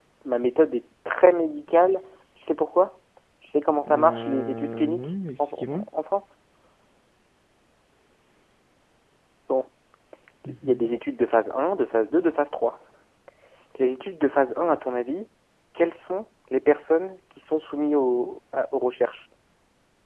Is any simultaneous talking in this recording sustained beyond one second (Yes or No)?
Yes